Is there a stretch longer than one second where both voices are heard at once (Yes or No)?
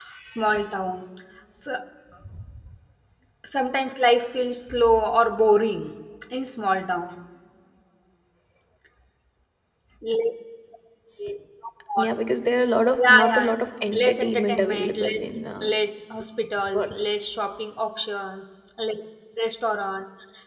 Yes